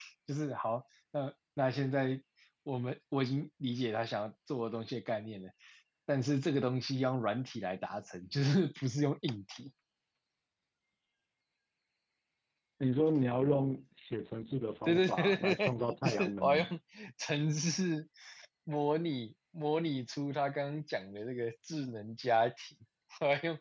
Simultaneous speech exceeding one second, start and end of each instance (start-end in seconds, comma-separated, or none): 14.8-16.7